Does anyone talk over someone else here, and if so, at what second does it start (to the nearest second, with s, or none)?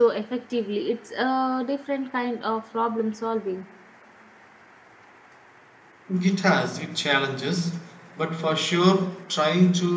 none